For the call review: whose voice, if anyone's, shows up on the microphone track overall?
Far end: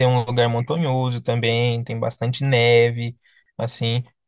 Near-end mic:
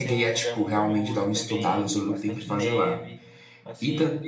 both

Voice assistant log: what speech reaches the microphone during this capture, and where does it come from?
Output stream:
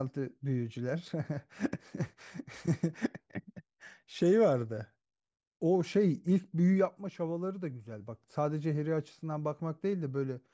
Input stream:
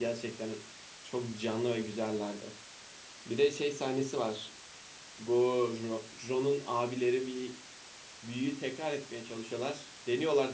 user only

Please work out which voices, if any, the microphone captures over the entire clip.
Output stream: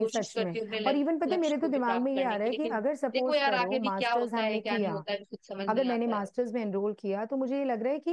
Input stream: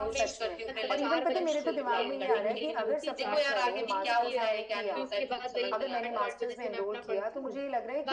both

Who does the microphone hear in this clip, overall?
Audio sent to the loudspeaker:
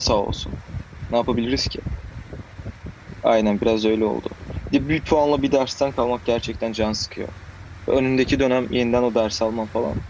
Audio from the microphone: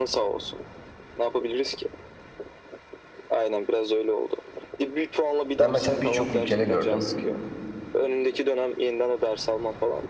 both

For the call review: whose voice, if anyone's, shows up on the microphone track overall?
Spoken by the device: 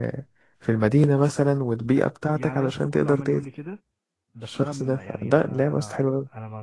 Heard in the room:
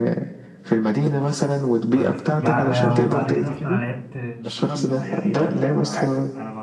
both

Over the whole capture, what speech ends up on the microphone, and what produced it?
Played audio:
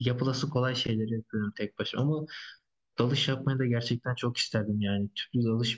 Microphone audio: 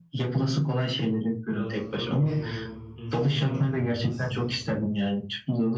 both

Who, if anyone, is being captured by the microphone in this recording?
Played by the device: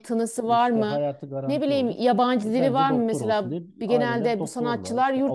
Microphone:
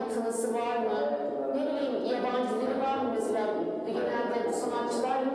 echo only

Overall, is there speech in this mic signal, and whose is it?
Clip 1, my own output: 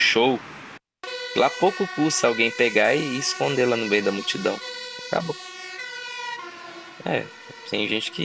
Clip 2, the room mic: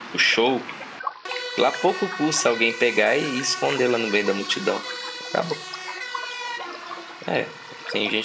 echo only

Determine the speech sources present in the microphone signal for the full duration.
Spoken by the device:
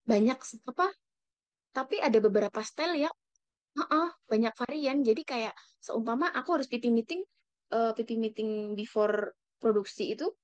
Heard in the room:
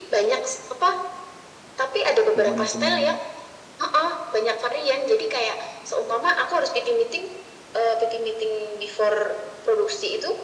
both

